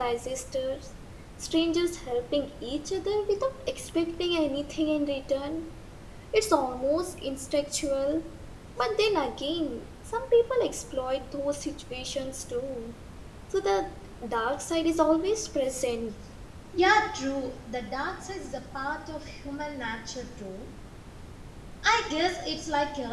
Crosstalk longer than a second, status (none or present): none